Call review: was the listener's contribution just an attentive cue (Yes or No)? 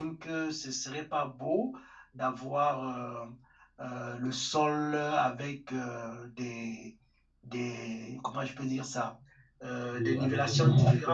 No